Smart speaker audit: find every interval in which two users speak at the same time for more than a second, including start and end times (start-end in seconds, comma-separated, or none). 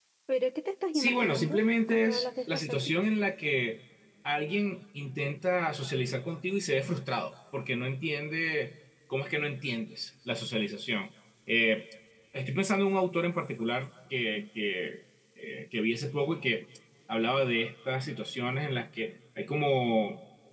0.9-3.0